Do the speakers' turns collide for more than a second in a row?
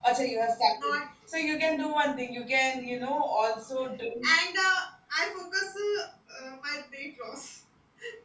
No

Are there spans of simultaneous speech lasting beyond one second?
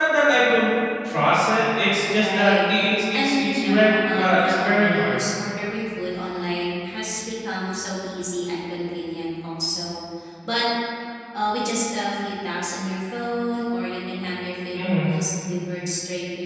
Yes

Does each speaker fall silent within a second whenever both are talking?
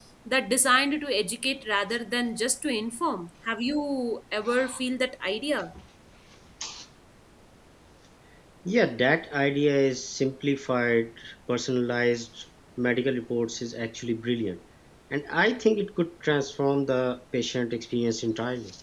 Yes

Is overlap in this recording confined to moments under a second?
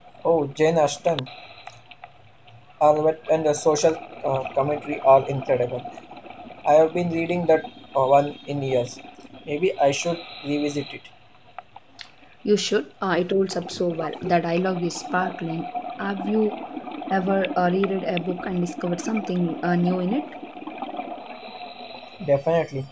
Yes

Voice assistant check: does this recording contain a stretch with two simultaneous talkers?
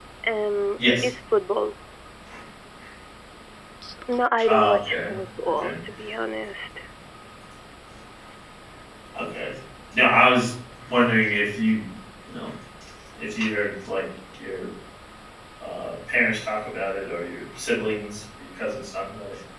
Yes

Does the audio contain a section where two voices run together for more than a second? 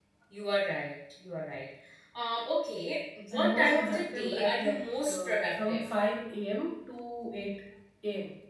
Yes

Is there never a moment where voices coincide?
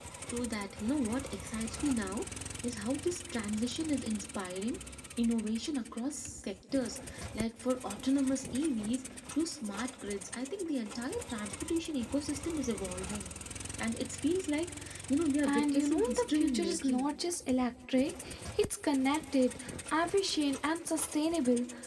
No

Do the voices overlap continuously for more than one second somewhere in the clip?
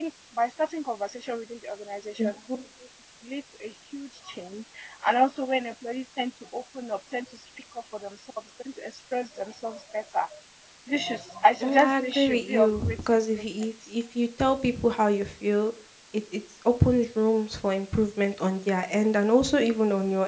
Yes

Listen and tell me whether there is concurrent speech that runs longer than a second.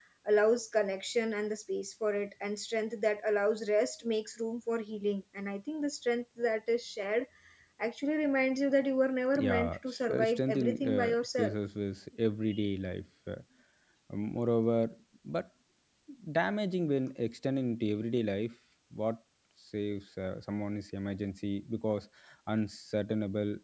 Yes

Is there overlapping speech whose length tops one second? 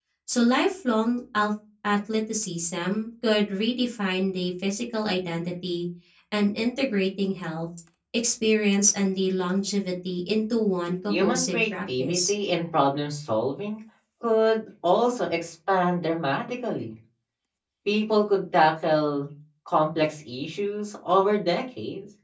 Yes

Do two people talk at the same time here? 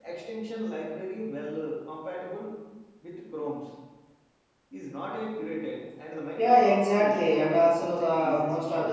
Yes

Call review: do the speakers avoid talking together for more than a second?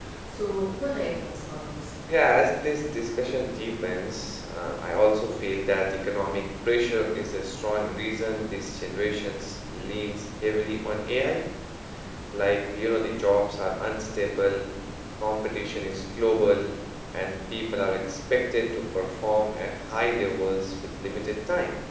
Yes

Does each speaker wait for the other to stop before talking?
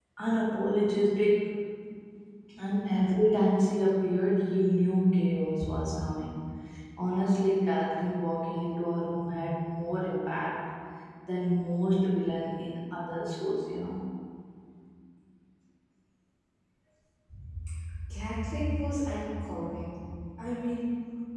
Yes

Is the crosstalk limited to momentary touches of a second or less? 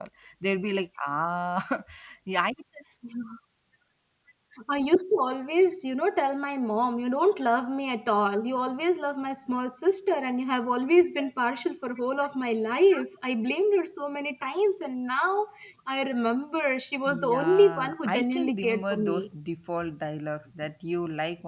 No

